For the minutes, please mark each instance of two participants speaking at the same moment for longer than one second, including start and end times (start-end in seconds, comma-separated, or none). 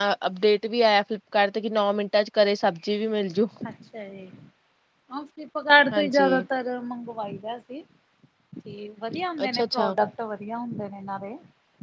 none